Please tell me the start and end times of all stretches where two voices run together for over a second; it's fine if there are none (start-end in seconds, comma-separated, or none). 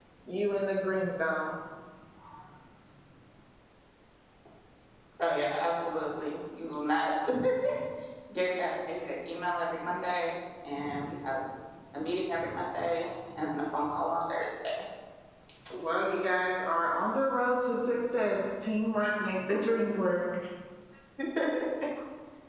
none